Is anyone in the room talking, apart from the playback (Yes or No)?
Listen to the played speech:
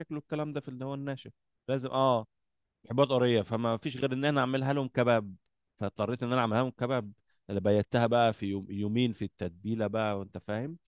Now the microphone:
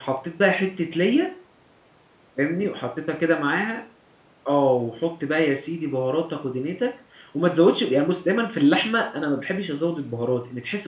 Yes